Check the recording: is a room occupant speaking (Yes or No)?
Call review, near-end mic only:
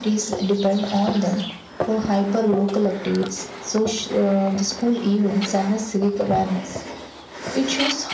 Yes